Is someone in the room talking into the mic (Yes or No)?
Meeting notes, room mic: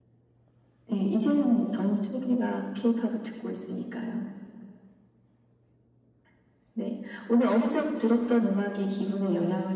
No